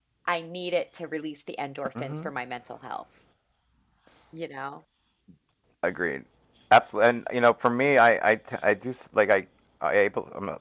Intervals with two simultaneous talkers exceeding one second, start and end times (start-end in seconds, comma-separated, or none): none